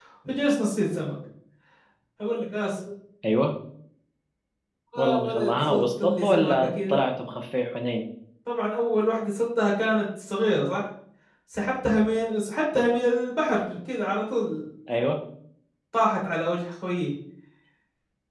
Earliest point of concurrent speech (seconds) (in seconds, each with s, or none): 5.0 s